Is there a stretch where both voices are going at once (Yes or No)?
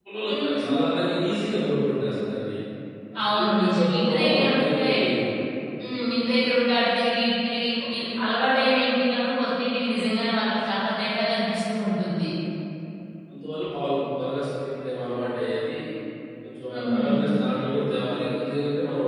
Yes